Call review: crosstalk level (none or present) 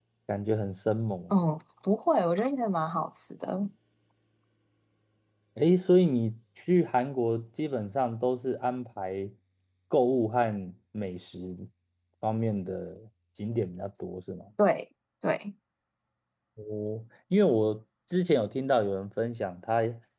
none